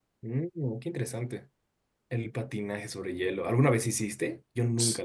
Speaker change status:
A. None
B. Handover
B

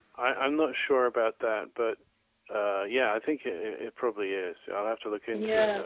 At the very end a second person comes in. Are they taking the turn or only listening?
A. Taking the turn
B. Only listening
A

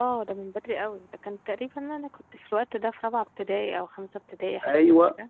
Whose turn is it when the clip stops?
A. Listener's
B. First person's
A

